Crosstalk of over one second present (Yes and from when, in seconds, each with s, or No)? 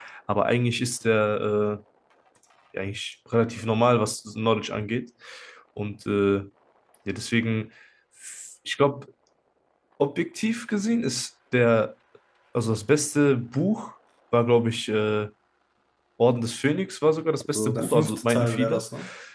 Yes, from 17.5 s